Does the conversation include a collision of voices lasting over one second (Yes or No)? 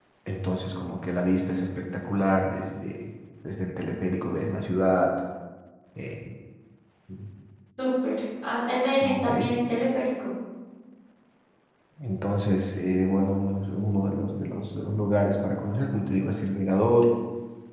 No